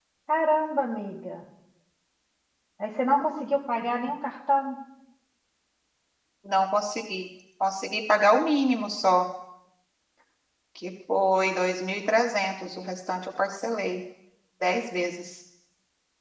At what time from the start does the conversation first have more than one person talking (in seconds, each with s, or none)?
none